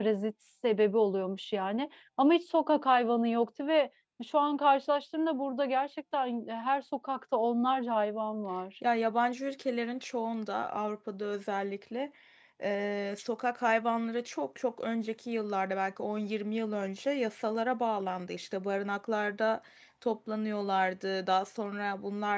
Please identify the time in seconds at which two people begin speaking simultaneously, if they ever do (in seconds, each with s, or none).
none